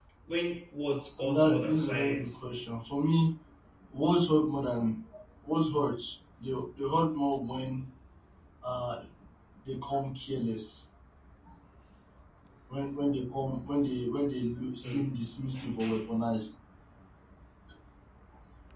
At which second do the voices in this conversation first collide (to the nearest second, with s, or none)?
1 s